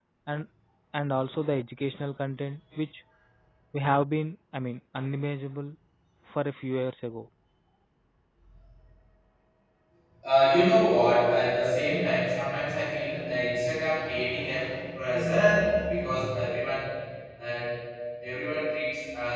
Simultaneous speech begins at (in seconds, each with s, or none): none